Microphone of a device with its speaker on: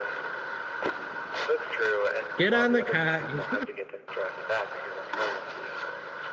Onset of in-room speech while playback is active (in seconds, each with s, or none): 2.4 s